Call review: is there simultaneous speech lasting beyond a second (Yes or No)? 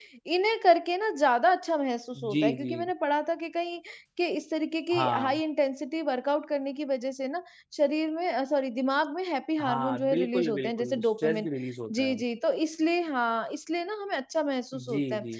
Yes